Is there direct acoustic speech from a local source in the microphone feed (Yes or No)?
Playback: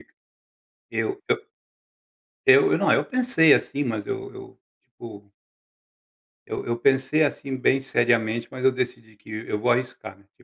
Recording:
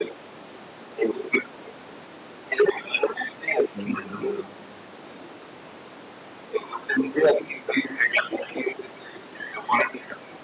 Yes